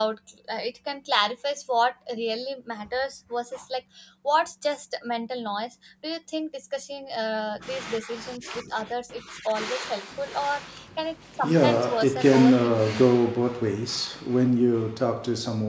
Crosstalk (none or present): present